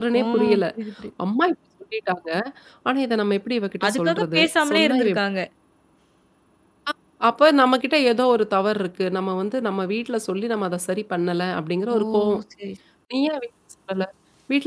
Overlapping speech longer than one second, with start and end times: 3.9-5.1

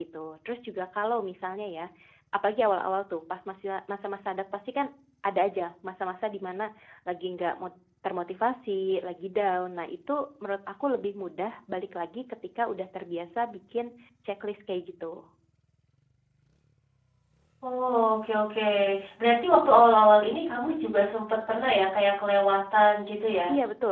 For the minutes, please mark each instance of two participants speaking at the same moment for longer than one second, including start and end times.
none

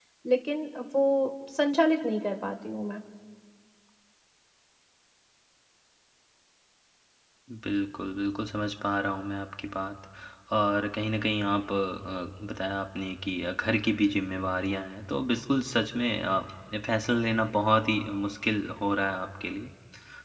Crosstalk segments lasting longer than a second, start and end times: none

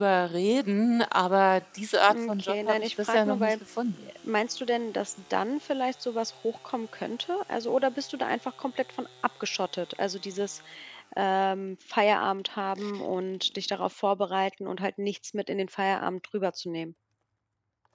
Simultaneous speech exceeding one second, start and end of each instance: 2.1-3.5

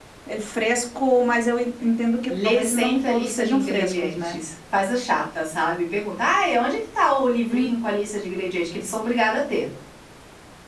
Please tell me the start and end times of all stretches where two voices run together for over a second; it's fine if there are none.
2.3-4.3

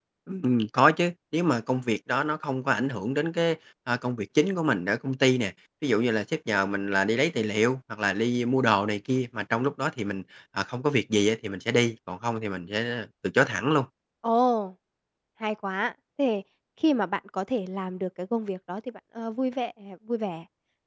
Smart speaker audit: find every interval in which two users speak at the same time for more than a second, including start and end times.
none

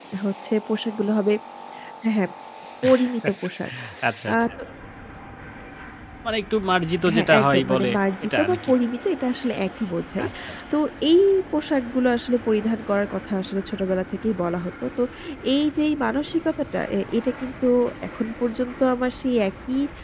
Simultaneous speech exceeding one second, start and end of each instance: 7.1-8.7

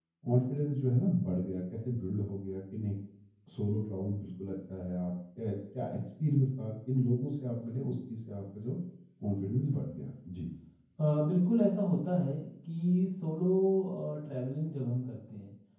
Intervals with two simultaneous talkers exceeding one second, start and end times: none

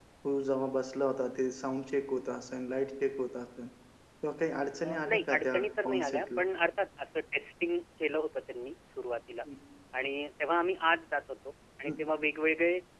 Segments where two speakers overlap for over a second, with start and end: 4.8-6.4

